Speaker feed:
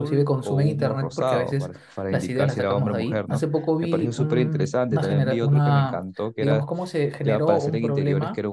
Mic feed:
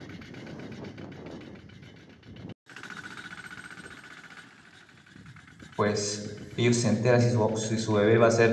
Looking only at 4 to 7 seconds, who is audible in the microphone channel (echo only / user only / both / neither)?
user only